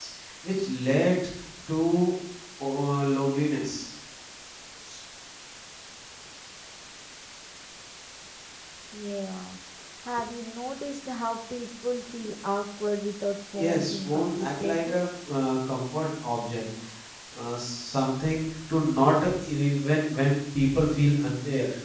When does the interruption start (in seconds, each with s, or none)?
13.6 s